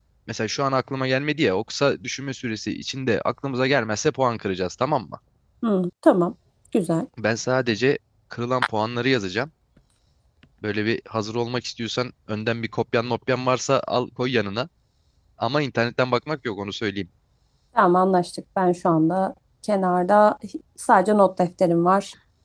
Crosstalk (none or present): none